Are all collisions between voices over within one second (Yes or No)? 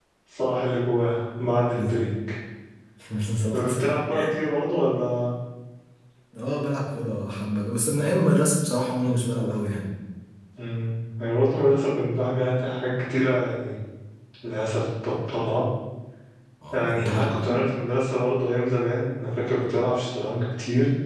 Yes